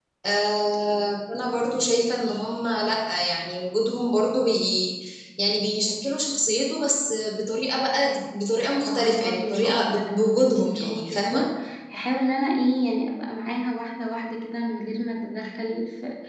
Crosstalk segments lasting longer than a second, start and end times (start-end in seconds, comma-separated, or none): 8.9-11.5